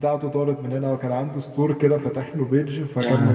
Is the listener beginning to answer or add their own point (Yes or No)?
No